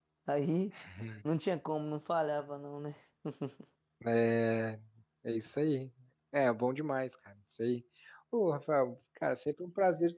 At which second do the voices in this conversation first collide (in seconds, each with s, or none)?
none